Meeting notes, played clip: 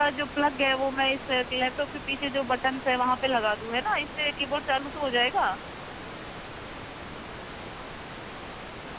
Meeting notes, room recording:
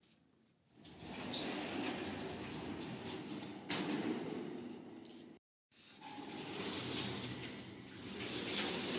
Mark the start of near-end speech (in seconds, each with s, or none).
none